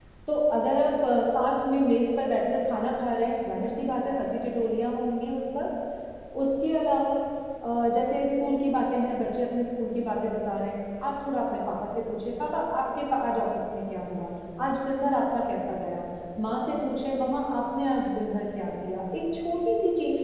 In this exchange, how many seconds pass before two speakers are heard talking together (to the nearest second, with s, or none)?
none